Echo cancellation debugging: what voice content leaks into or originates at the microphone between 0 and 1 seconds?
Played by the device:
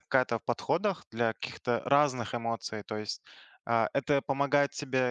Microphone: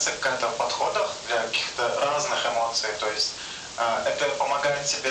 echo only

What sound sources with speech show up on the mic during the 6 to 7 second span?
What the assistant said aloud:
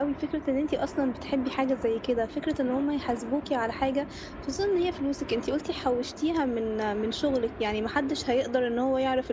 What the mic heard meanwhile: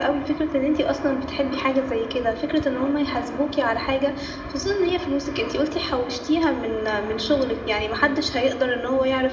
echo only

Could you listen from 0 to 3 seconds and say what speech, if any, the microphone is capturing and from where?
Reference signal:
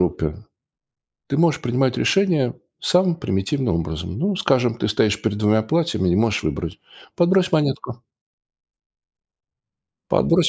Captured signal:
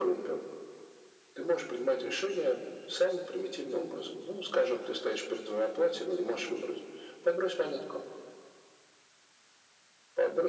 echo only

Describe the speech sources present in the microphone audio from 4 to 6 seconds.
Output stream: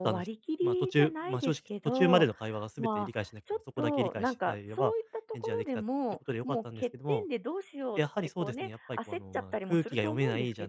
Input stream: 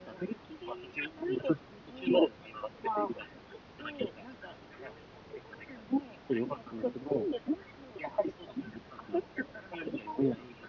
echo only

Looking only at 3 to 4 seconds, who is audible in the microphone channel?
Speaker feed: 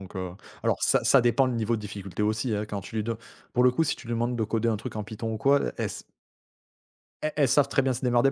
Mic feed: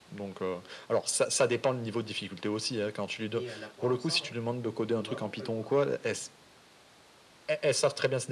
both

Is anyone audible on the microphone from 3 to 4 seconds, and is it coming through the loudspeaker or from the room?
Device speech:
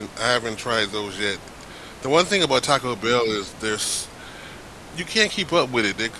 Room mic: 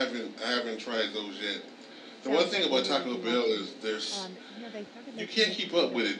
both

